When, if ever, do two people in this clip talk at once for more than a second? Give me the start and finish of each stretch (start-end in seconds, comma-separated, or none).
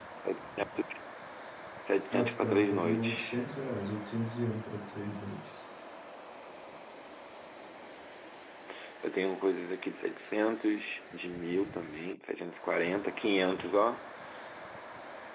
2.1-3.3